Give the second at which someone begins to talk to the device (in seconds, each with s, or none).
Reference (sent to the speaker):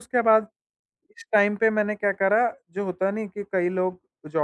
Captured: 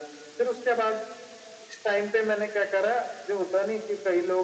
none